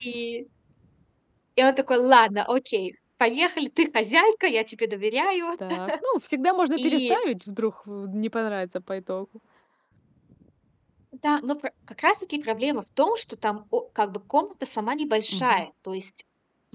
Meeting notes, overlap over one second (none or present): none